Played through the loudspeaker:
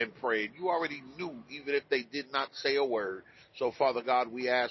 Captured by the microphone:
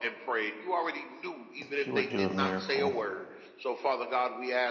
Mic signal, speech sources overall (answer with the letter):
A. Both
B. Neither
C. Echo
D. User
A